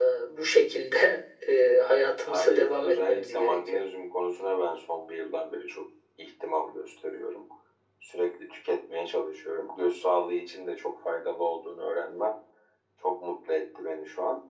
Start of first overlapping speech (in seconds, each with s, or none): 2.2 s